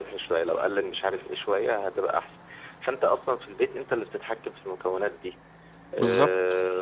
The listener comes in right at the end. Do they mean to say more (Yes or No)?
No